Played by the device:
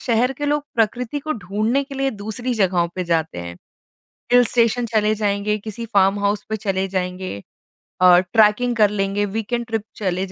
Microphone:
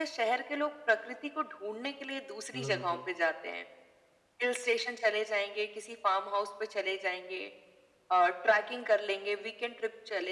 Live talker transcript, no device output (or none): हुँ, हुँ, हुँ।